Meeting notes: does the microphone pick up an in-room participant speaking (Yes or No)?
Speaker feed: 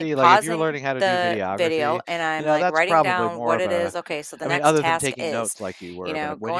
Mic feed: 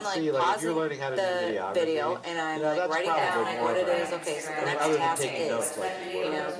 Yes